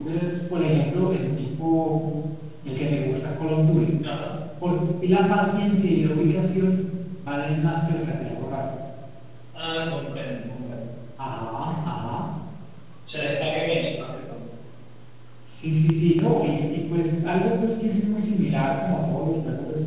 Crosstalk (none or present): none